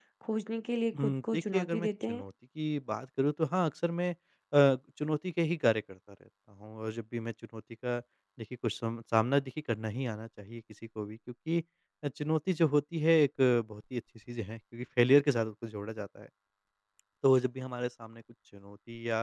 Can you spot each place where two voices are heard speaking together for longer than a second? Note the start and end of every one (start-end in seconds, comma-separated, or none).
1.0-2.2